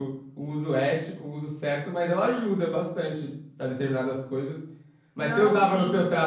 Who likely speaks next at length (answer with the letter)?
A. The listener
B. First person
B